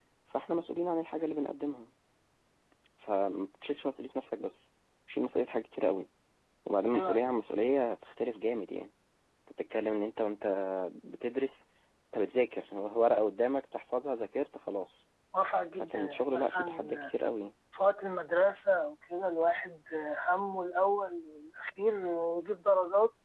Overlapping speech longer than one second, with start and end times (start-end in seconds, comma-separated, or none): 15.8-17.1